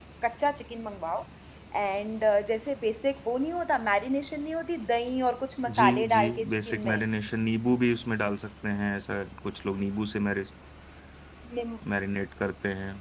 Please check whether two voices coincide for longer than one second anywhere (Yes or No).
Yes